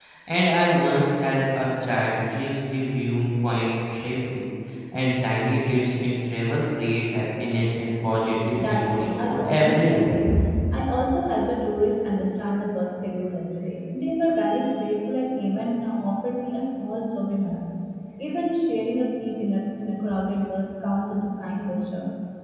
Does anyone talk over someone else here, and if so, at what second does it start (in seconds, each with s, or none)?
8.6 s